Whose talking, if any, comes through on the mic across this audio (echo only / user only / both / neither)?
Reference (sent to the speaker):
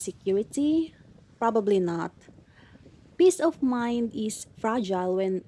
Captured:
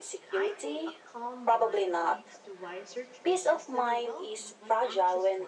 both